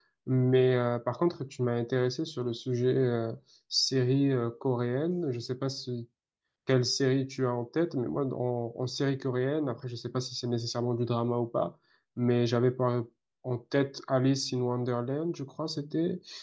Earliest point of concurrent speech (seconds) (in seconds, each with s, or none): none